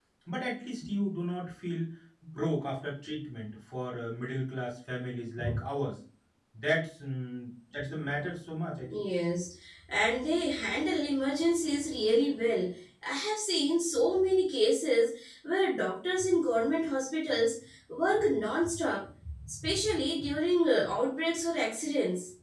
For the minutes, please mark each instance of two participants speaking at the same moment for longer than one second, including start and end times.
none

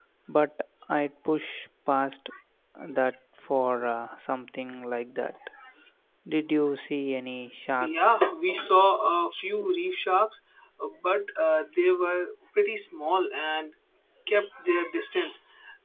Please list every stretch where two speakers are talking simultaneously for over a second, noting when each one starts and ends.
none

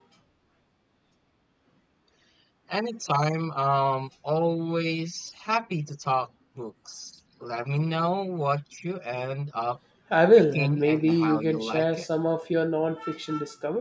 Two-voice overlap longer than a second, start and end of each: 10.4-12.1

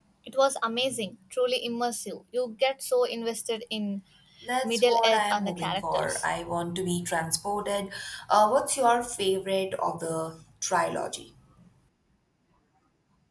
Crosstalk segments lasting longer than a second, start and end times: 4.6-6.2

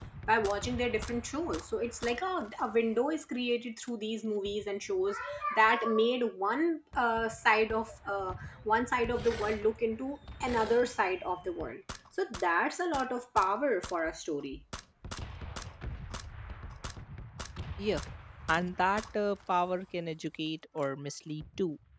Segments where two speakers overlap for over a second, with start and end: none

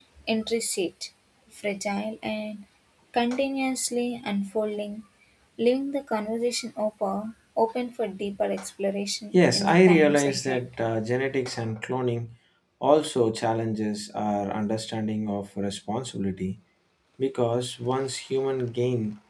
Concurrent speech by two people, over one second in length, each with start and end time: 9.3-10.6

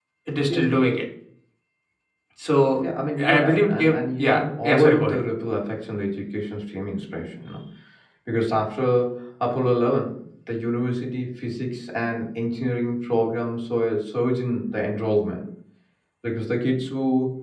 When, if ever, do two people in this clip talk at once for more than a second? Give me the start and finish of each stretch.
3.2-5.2

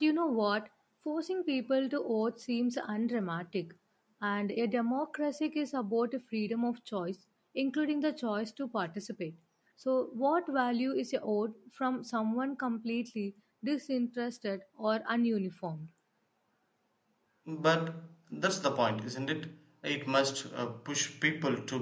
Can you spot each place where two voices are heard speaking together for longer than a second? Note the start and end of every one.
none

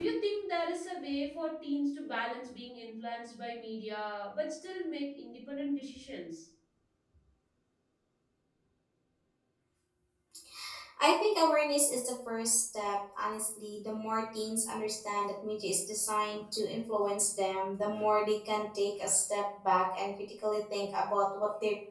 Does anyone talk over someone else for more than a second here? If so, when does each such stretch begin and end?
none

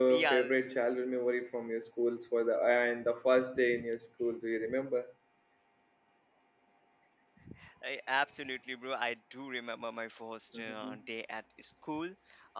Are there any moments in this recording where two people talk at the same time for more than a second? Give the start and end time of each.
none

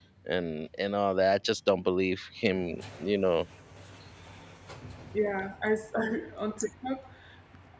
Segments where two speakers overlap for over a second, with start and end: none

